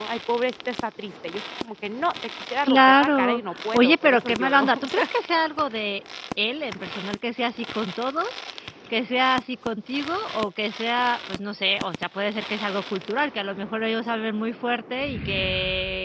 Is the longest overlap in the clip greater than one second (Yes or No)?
Yes